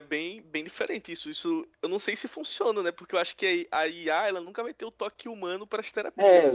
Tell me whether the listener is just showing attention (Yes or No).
No